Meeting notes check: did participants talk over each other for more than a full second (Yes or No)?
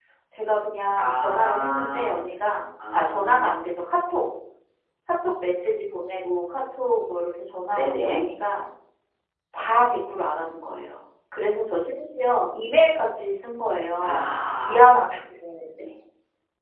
Yes